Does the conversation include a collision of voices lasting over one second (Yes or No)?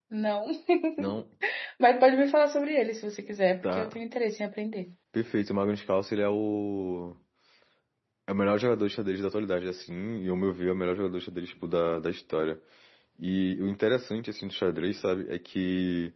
No